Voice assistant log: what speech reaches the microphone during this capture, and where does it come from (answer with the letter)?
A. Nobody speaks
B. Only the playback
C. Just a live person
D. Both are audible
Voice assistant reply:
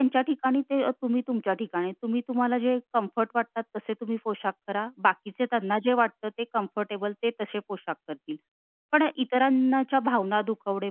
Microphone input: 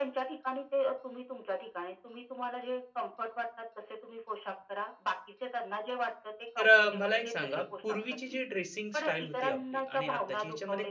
D